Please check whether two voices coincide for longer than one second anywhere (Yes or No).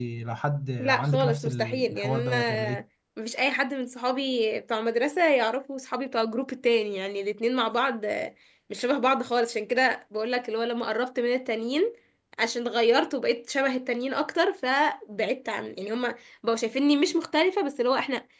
Yes